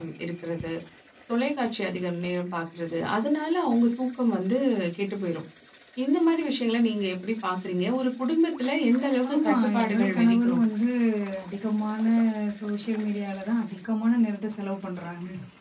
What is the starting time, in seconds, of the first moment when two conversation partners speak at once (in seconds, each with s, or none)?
9.2 s